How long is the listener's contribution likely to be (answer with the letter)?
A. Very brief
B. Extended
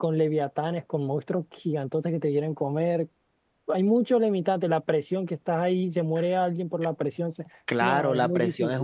B